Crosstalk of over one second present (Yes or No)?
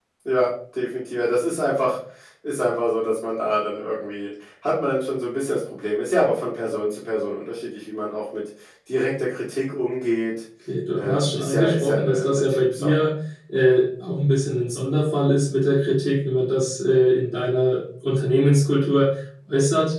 Yes